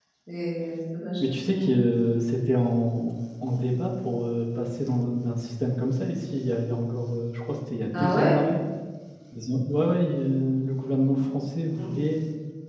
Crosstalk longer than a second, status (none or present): none